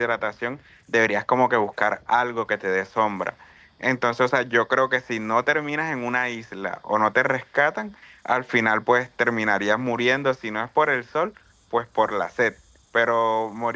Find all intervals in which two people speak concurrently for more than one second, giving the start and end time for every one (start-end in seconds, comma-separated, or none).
none